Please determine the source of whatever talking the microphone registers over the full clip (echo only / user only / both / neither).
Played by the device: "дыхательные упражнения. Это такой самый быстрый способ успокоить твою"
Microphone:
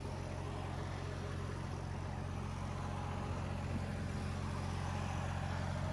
neither